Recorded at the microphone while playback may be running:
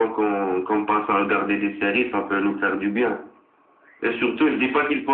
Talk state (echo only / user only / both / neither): echo only